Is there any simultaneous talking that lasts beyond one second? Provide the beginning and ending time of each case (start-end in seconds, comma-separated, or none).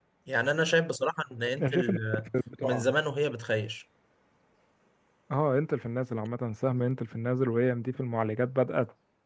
none